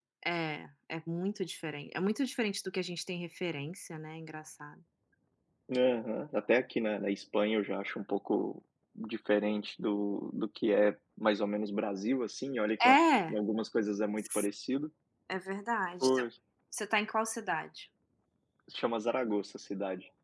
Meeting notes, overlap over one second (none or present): none